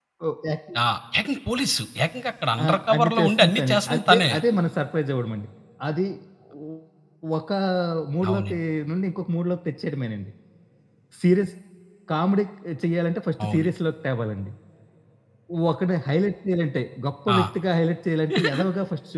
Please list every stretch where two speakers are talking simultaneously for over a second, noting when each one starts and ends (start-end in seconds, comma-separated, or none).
2.6-4.3